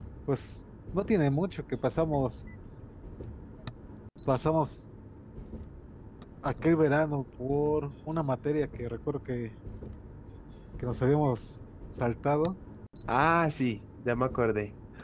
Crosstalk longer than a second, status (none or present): none